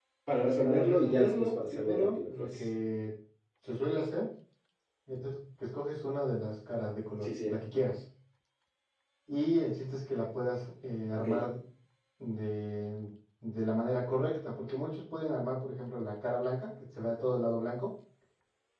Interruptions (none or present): present